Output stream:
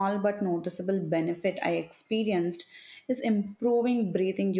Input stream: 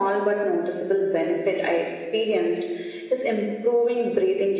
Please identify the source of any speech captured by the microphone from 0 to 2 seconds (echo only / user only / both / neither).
echo only